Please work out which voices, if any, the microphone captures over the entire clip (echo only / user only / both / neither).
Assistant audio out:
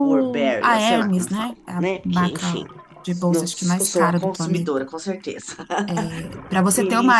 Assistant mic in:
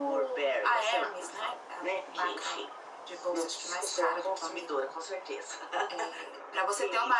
echo only